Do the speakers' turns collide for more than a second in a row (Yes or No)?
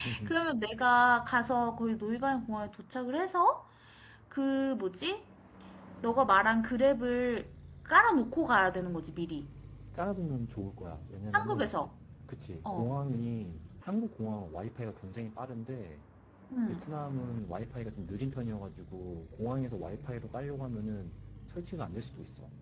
No